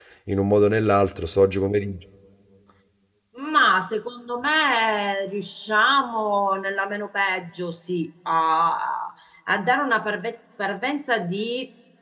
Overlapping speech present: No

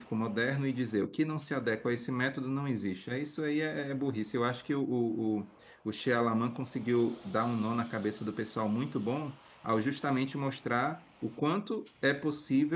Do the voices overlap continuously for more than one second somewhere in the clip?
No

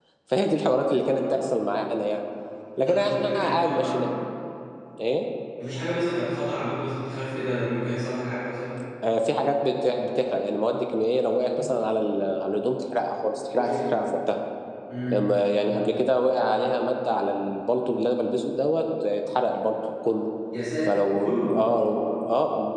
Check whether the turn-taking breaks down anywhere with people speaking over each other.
Yes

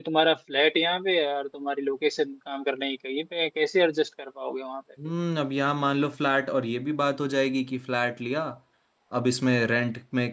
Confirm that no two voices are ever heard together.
Yes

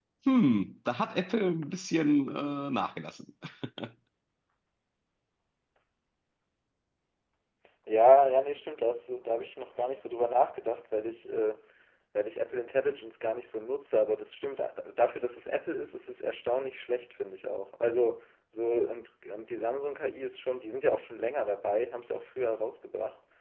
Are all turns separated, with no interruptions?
Yes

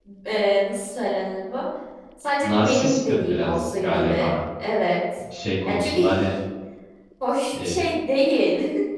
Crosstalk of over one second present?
Yes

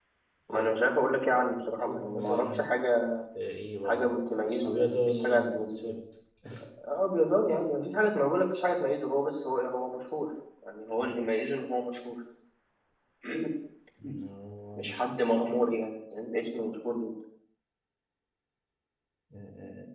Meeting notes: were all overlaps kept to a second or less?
No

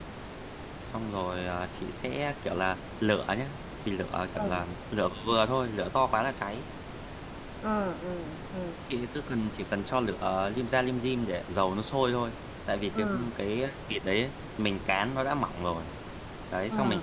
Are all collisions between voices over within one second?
Yes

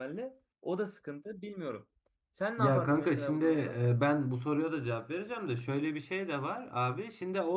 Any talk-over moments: Yes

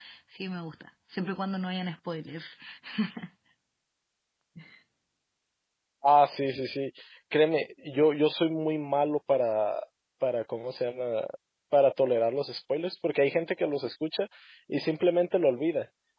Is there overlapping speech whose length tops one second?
No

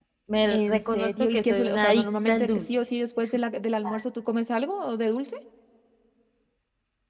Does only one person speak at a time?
No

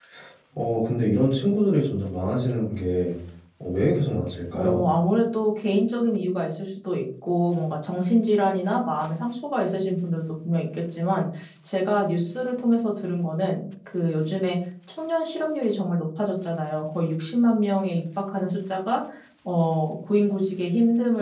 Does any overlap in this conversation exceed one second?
No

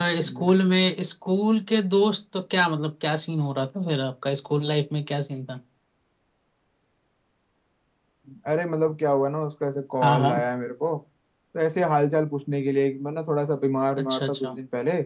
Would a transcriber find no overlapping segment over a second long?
Yes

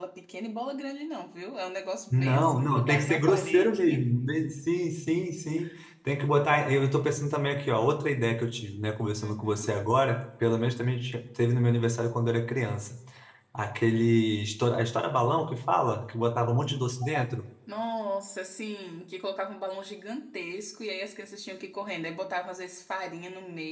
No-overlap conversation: No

